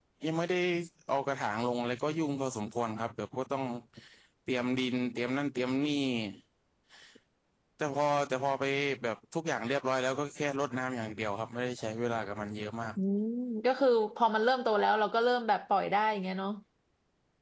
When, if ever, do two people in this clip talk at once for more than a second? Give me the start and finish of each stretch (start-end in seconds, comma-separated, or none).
none